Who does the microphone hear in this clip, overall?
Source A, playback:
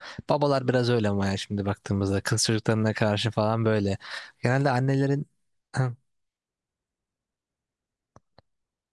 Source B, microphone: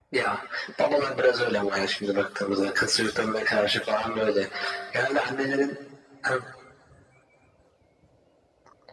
echo only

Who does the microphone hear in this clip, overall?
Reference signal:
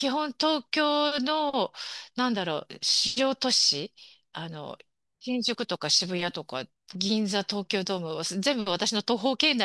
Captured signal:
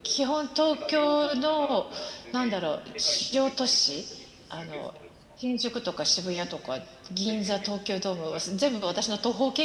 both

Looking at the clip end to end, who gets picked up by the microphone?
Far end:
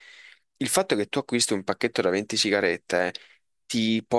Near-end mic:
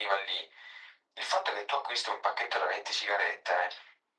echo only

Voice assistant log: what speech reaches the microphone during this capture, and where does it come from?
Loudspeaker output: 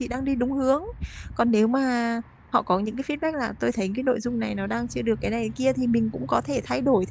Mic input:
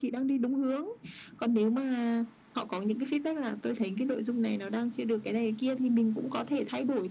echo only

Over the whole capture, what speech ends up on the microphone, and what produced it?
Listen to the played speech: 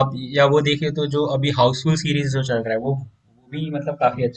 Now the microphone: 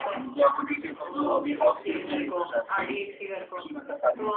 both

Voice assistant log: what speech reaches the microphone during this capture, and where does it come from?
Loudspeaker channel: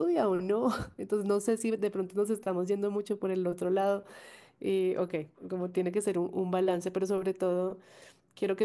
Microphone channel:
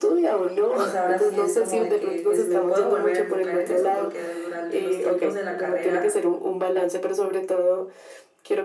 both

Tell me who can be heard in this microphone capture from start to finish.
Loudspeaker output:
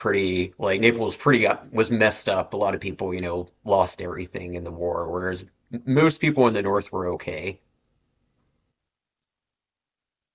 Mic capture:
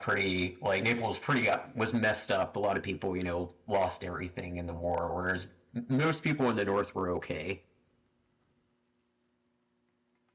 echo only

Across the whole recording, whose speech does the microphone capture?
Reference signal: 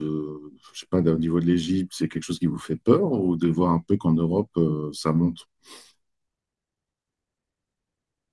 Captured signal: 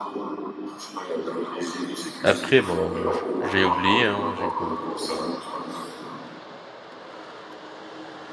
both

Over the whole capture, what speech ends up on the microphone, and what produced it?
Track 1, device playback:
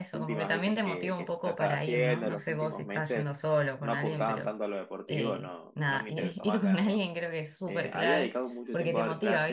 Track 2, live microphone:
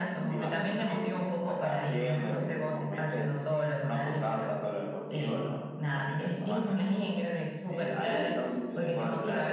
echo only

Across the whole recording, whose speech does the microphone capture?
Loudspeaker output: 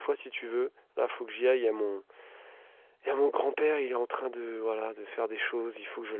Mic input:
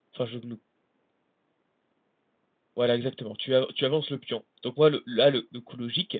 user only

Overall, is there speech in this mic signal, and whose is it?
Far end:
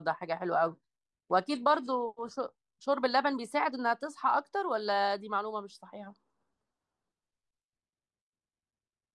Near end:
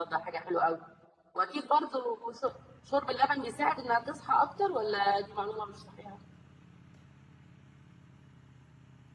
echo only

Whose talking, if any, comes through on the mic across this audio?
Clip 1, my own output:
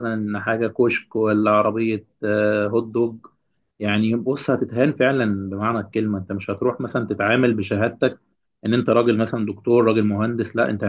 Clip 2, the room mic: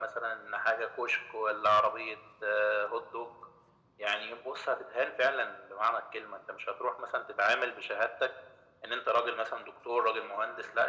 echo only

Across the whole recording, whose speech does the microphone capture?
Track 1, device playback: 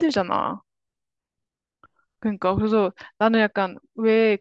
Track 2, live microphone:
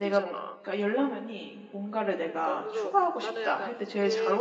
both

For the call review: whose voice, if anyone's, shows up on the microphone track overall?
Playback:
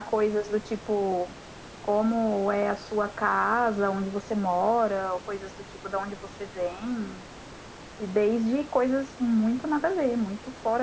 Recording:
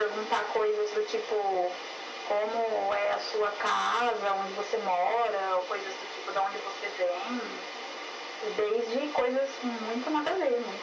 echo only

